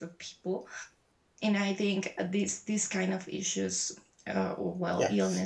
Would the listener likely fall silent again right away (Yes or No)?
Yes